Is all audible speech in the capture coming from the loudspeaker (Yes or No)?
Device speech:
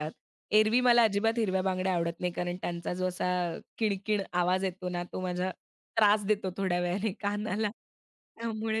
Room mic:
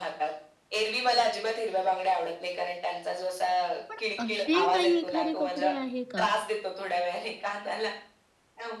No